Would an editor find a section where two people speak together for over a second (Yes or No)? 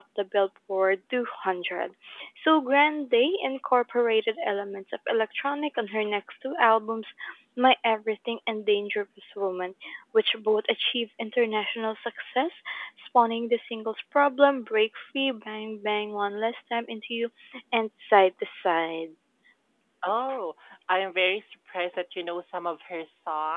No